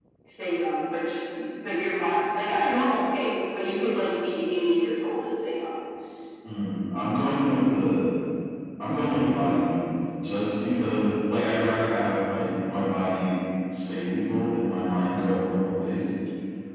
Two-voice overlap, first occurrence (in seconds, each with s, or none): none